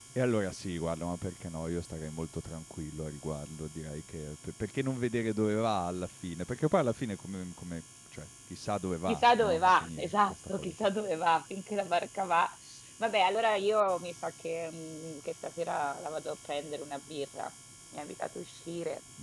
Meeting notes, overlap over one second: present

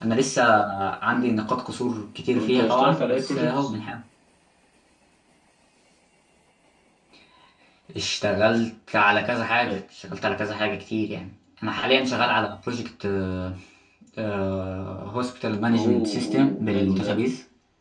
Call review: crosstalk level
present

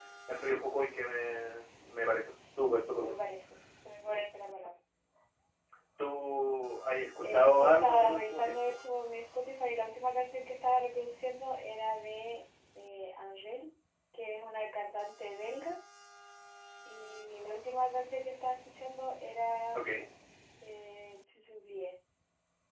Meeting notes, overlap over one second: present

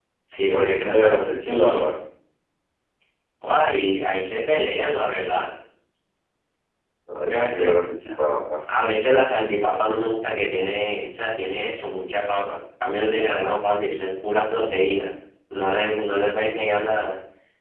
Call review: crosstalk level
present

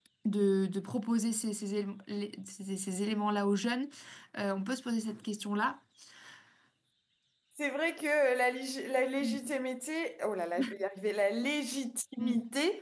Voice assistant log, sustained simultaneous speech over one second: none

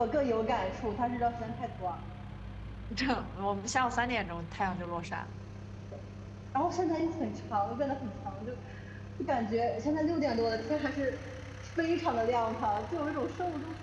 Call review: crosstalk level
none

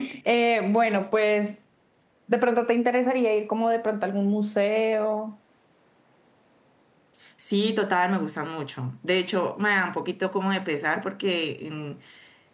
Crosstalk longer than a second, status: none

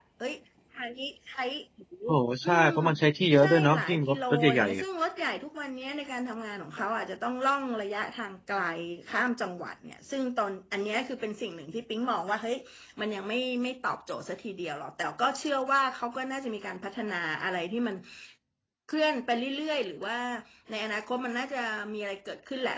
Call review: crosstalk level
present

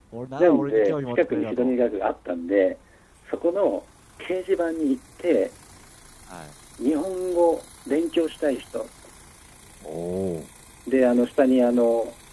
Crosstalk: present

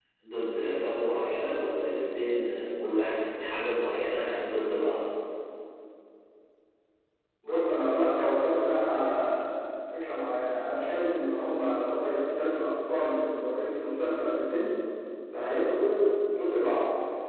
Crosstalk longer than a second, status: none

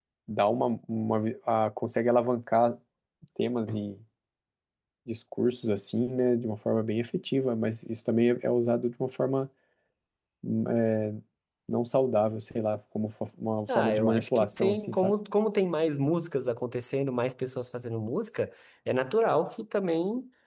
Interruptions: present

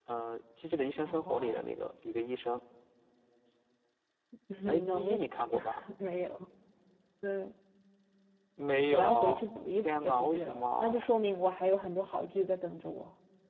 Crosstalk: present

